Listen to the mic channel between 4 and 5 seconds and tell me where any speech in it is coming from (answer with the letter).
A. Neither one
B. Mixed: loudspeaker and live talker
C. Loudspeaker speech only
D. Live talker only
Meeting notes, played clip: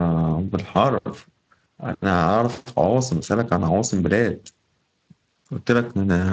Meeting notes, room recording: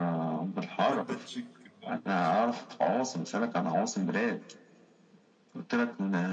C